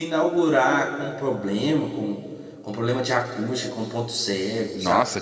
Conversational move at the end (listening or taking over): taking over